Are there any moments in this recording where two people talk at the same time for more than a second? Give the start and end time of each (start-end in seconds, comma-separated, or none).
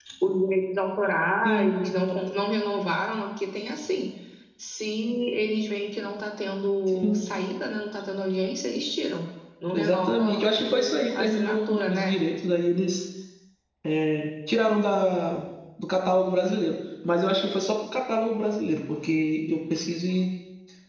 9.7-12.2